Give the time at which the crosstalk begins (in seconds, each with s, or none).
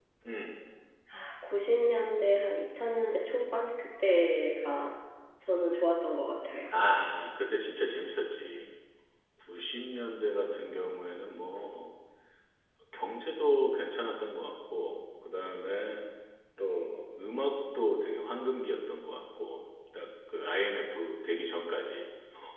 none